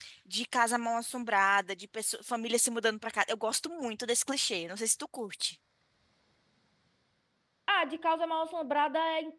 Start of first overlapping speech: none

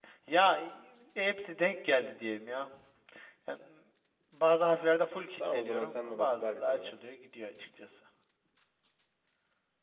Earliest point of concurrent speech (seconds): 5.4 s

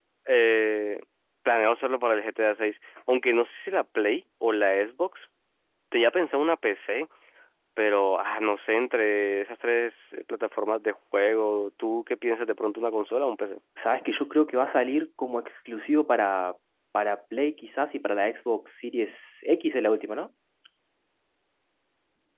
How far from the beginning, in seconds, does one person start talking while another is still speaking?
none

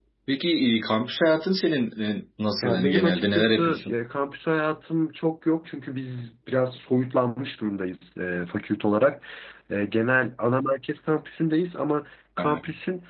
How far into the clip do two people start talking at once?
2.6 s

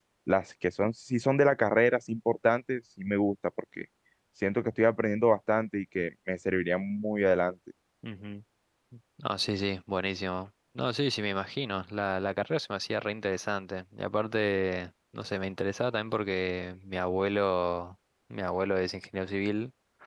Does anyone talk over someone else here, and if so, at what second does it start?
none

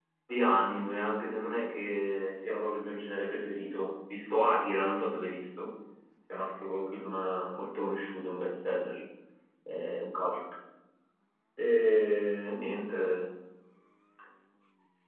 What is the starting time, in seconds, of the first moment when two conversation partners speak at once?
none

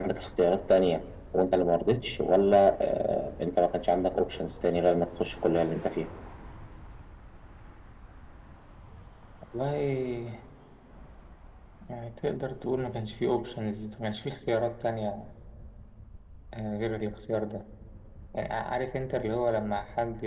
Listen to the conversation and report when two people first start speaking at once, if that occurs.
none

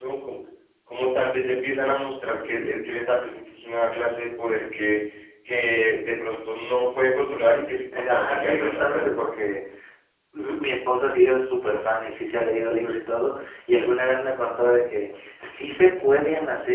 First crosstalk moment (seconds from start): 7.9 s

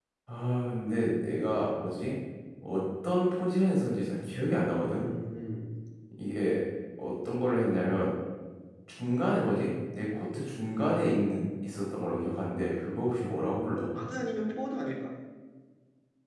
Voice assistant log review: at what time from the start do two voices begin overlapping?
none

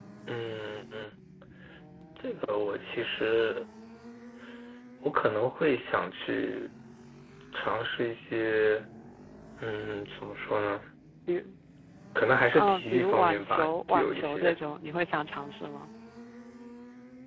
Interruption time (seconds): 12.5 s

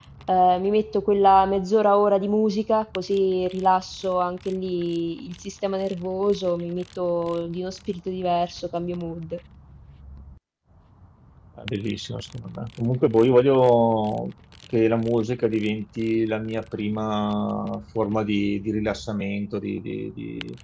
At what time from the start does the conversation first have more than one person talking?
none

